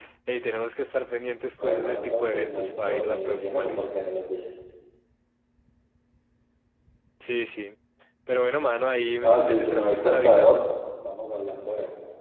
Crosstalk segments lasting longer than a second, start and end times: 1.6-3.8, 9.2-10.6

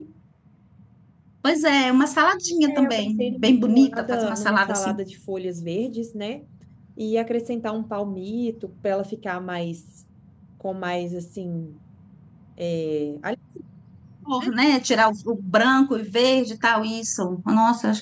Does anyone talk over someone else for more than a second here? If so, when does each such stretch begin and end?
2.7-5.0

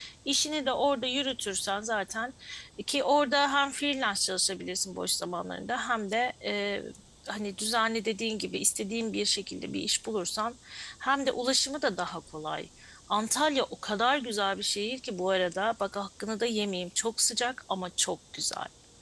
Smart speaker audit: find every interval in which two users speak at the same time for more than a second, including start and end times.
none

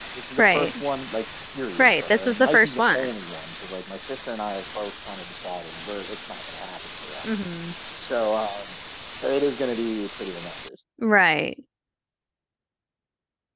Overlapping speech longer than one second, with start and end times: 1.8-3.1

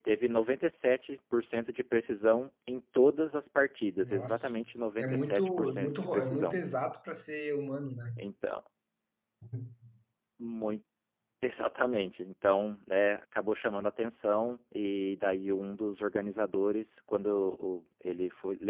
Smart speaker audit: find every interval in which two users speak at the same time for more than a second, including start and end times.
5.0-6.6

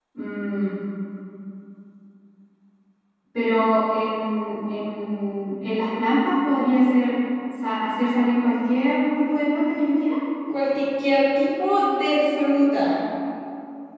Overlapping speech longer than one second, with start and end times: none

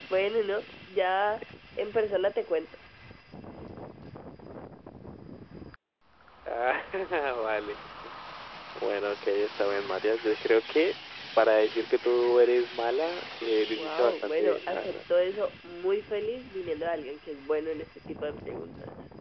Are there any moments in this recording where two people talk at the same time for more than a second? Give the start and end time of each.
13.7-14.9

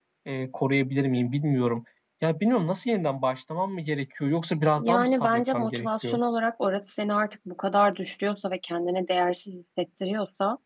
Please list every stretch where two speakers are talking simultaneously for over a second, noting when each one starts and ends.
4.8-6.2

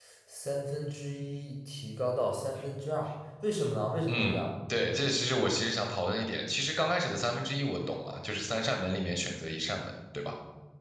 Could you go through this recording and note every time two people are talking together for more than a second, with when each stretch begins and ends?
none

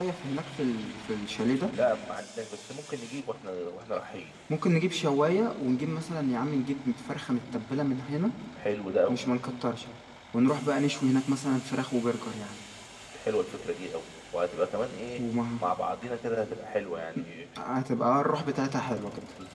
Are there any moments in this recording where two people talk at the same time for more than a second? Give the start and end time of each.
none

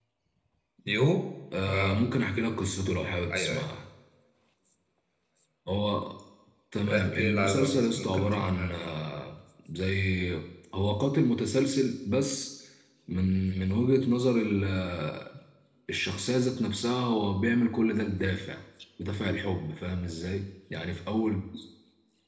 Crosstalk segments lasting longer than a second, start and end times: 7.0-8.7

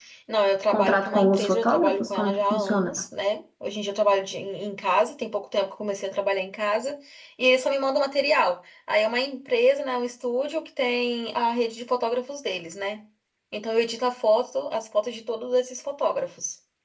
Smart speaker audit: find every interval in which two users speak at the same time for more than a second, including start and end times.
0.7-3.0

